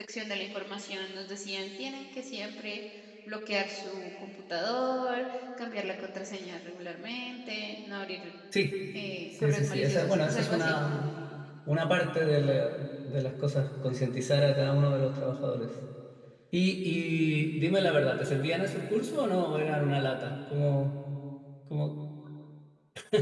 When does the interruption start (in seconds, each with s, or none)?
9.4 s